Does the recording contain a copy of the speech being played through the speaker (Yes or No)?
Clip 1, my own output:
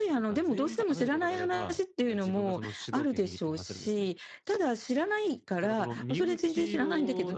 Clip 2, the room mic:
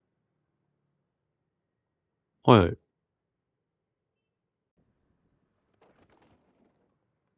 No